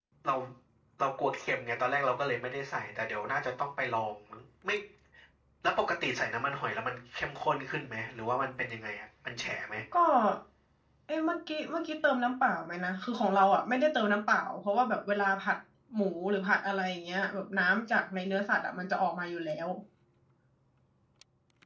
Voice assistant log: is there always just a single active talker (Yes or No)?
Yes